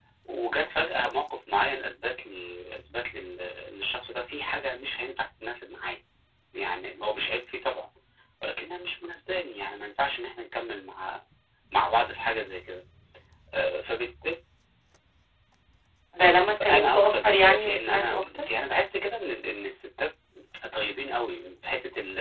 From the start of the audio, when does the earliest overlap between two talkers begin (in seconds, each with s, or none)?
16.5 s